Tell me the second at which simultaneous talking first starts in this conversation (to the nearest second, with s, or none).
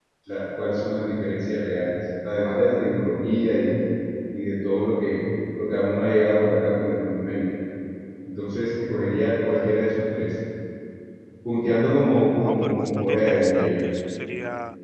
12 s